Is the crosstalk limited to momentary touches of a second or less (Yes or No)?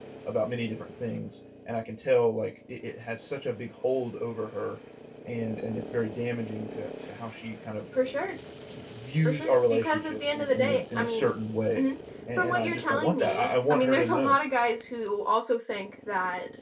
No